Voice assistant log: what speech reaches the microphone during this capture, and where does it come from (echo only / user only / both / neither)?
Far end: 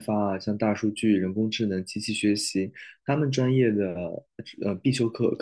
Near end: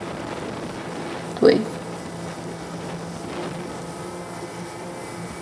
user only